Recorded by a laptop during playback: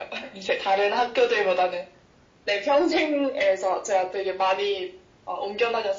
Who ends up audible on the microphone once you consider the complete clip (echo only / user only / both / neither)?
echo only